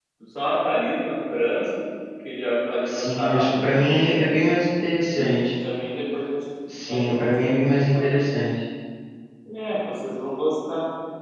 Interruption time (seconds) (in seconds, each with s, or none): 2.9 s